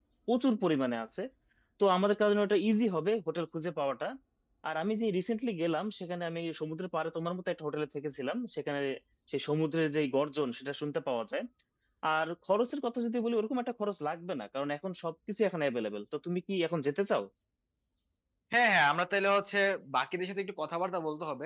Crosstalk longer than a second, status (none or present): none